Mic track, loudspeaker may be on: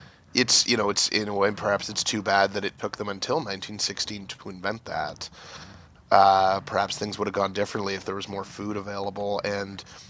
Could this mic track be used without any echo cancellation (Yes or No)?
Yes